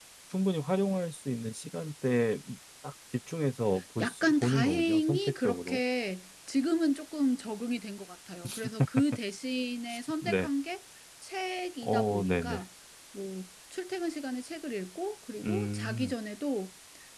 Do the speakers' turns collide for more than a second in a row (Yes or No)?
Yes